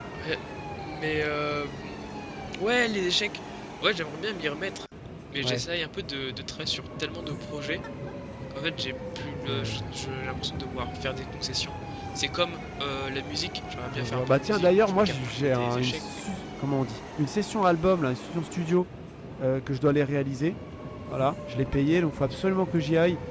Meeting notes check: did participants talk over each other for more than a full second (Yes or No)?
Yes